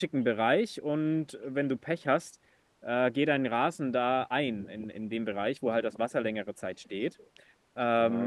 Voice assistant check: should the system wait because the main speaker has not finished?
No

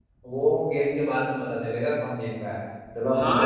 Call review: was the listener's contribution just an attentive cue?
No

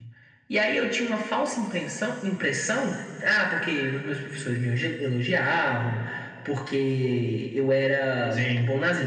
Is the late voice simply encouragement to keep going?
Yes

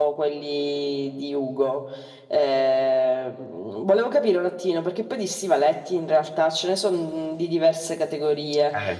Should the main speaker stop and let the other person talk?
No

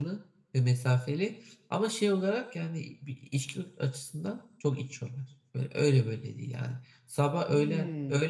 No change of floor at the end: Yes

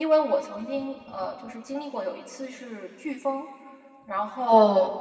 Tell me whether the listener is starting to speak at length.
No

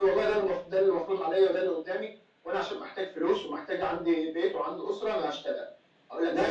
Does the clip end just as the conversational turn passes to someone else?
Yes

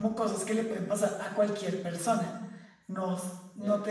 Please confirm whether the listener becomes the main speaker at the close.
No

